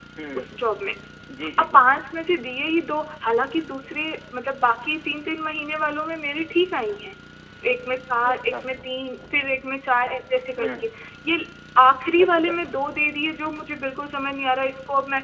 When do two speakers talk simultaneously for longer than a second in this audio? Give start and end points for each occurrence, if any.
none

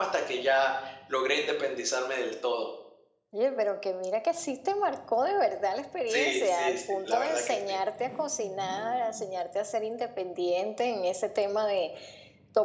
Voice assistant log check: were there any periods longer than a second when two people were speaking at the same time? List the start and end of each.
6.1-7.8

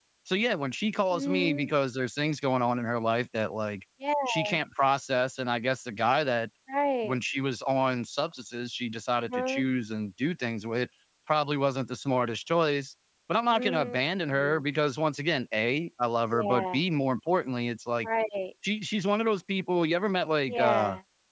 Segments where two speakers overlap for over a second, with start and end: none

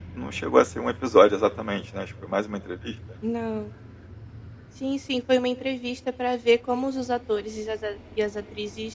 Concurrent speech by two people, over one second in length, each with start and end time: none

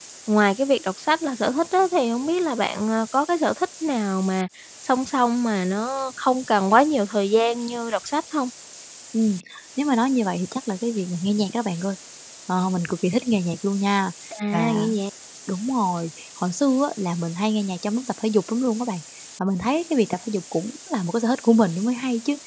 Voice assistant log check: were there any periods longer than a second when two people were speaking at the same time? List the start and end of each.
none

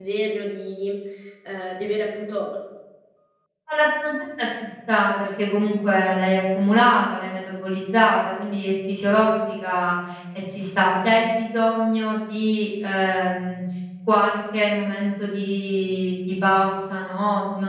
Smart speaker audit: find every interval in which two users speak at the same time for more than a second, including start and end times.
none

